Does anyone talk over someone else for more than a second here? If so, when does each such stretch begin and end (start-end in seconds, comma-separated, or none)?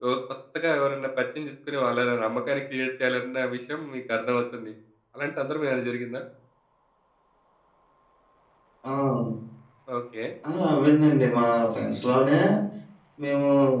none